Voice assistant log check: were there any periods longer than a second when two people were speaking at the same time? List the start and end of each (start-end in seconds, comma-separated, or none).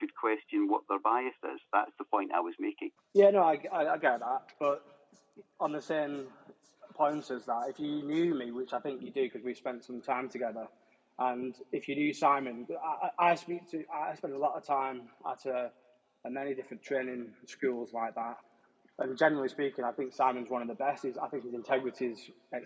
none